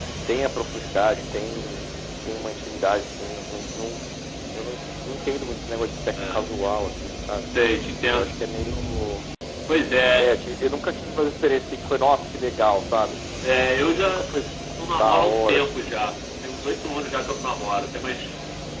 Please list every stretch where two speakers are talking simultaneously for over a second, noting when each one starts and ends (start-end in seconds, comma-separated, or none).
15.0-16.2